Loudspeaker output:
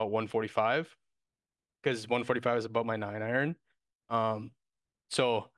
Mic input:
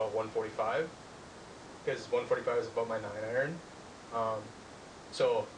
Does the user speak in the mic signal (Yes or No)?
No